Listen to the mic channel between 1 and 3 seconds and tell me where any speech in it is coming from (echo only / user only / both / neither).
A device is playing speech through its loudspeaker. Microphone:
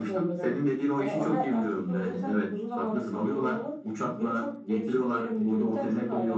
echo only